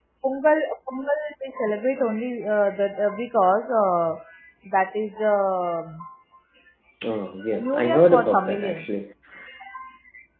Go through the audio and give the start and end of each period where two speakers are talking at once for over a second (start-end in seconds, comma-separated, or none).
7.6-8.9